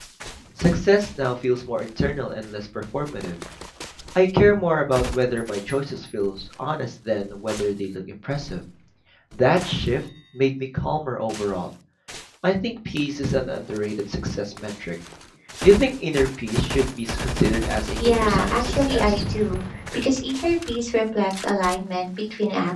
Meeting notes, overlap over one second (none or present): present